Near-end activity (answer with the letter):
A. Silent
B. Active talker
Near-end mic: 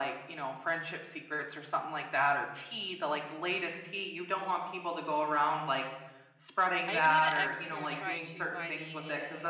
B